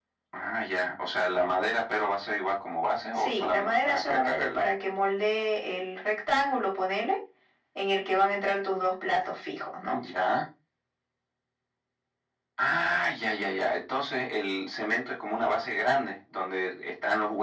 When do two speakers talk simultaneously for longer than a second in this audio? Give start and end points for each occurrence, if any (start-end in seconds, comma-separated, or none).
3.1-4.7